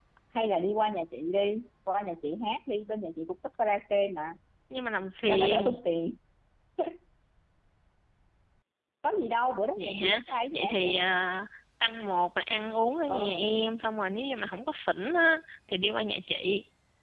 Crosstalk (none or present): present